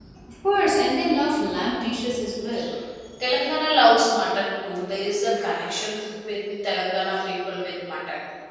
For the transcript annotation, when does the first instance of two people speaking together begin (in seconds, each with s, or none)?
none